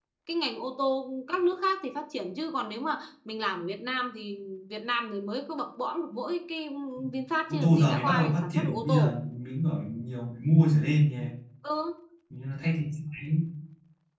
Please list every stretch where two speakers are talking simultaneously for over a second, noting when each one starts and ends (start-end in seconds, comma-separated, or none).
7.5-9.1